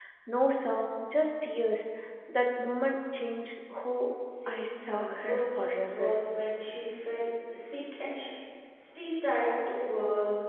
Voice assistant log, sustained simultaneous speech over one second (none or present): present